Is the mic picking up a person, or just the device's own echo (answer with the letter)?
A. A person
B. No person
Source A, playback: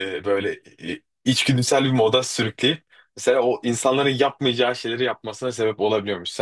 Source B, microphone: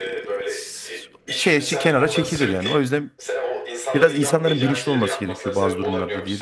A